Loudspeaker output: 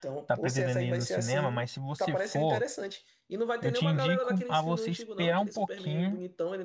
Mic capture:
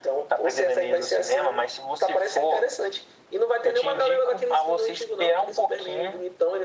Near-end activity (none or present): none